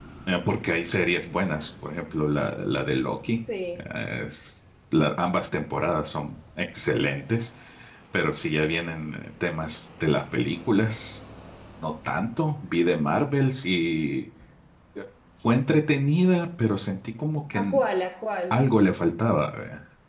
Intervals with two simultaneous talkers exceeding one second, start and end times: none

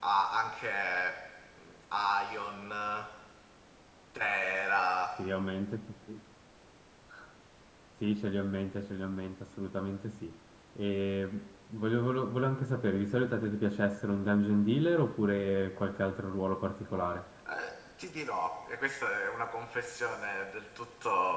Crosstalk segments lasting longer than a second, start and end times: none

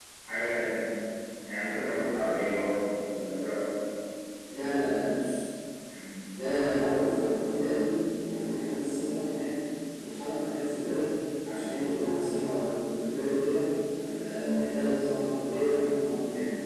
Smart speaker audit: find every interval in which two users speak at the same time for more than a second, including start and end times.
none

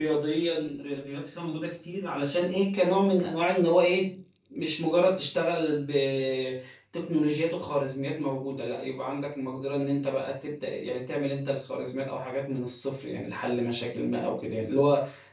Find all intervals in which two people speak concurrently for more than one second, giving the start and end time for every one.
none

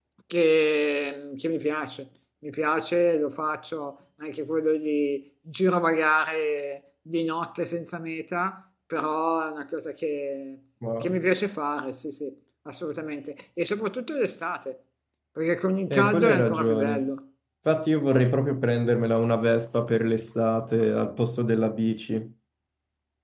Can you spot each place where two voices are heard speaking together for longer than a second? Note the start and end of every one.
15.9-17.1

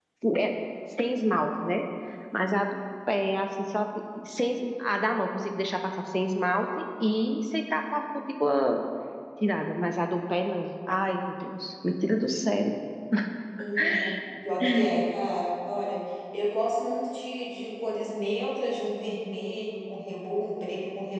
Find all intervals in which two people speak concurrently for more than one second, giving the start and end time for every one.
none

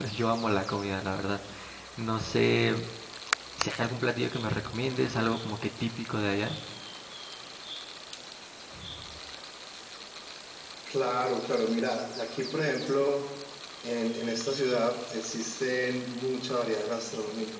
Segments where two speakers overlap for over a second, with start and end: none

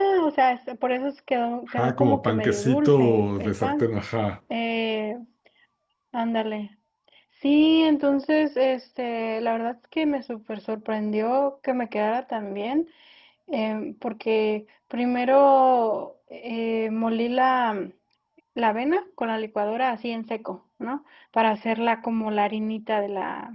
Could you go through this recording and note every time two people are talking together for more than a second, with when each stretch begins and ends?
1.7-3.9

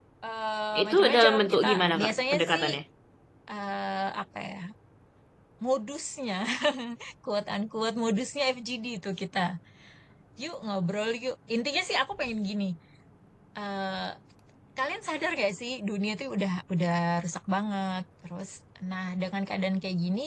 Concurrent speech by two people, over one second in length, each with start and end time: 0.8-2.6

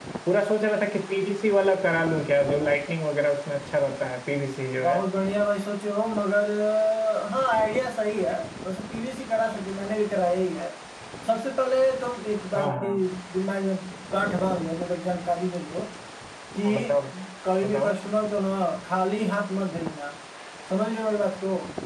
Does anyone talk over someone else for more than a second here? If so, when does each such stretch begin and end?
none

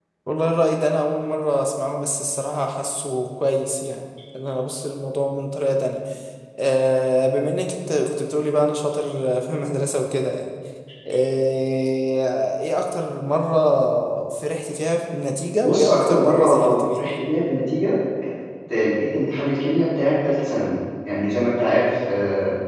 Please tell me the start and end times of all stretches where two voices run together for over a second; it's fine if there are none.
15.6-17.0

